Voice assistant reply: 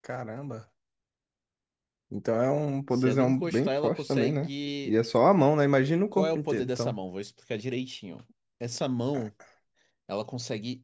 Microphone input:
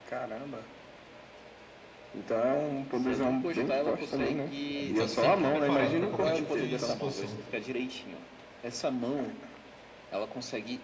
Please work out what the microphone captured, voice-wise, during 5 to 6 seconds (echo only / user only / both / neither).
both